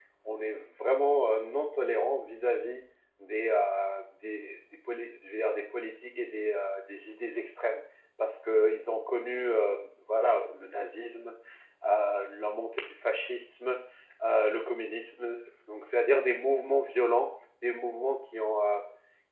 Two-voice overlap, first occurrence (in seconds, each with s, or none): none